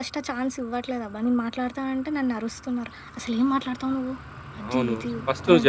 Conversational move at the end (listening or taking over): taking over